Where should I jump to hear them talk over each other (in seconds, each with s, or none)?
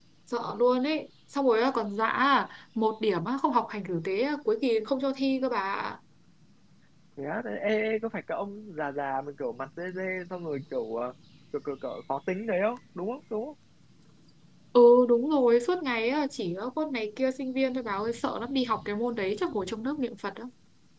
none